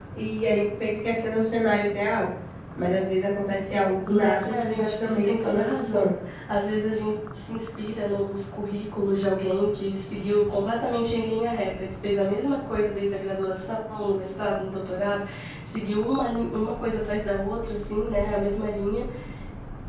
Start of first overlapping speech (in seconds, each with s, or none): 4.1 s